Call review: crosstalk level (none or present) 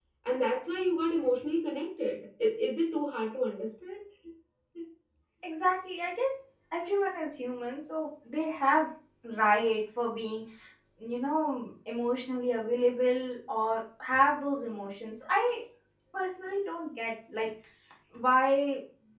none